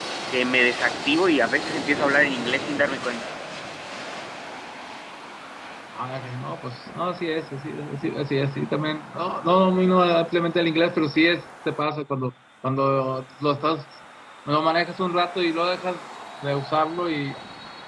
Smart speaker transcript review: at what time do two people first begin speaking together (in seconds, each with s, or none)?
none